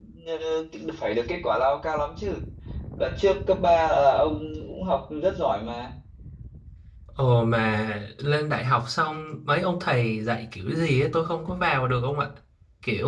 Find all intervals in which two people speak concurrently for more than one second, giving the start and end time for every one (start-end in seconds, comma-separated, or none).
none